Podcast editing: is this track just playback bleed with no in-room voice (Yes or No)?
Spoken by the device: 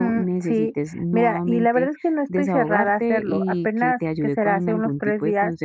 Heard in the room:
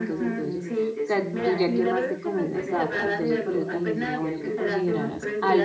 No